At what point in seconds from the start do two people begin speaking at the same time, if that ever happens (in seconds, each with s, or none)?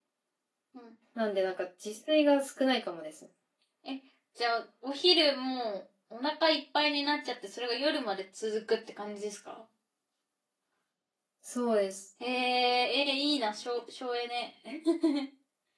none